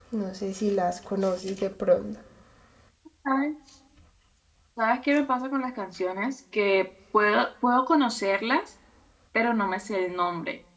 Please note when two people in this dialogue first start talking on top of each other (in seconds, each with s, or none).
none